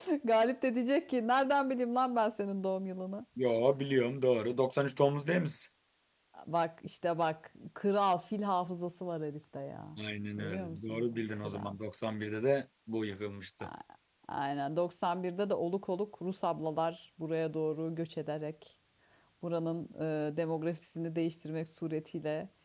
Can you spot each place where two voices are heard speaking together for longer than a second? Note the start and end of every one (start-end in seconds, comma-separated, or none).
10.4-11.8